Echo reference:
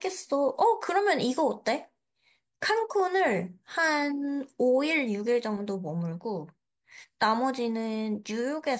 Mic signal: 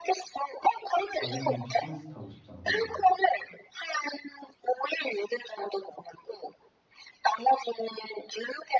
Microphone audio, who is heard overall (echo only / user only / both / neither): both